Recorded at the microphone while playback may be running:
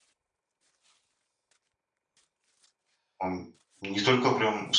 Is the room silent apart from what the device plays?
No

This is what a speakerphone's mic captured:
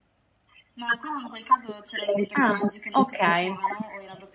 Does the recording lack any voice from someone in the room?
No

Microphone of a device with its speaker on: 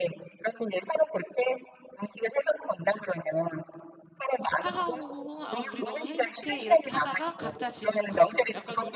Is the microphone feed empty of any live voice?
No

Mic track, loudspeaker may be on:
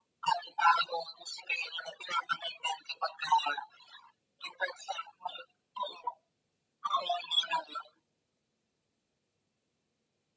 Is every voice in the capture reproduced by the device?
Yes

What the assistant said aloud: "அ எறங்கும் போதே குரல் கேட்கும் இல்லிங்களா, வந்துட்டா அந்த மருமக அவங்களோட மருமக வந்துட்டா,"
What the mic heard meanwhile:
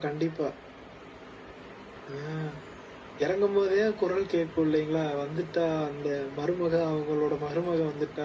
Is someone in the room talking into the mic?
No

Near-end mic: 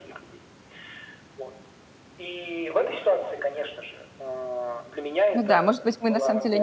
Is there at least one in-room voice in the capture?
Yes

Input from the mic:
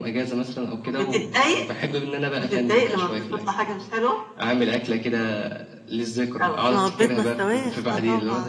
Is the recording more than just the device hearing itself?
Yes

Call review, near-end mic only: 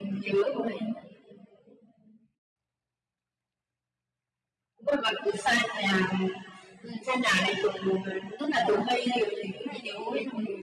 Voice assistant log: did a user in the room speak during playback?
No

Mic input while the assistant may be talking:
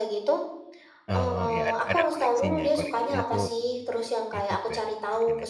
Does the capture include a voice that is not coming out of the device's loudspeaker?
Yes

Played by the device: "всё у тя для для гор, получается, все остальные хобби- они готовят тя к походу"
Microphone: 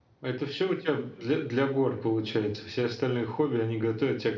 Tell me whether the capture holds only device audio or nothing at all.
Yes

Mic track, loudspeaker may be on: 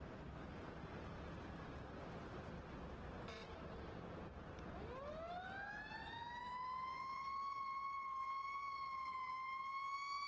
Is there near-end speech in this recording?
No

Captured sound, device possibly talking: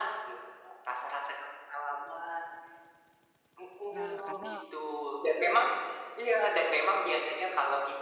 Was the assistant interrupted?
Yes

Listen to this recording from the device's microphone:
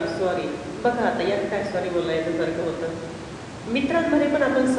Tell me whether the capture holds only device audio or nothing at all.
Yes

